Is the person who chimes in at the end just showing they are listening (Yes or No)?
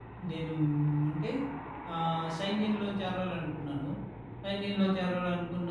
Yes